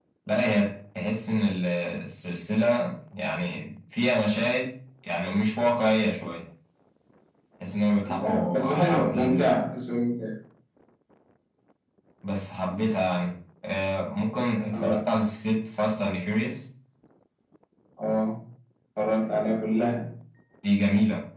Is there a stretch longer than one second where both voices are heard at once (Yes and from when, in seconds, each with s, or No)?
Yes, from 8.1 s